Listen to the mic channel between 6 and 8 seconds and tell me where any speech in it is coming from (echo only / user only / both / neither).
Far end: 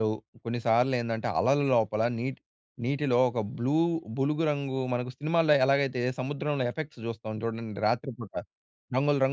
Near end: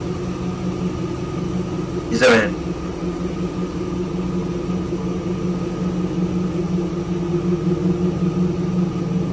neither